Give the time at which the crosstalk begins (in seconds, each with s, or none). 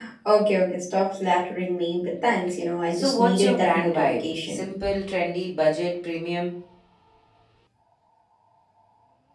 2.9 s